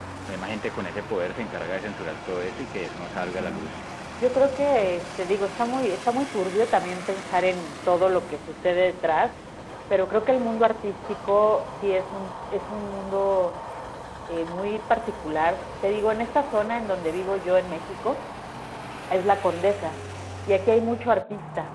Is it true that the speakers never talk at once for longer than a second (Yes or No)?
Yes